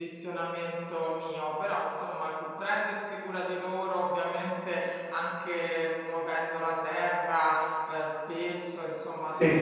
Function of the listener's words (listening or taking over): listening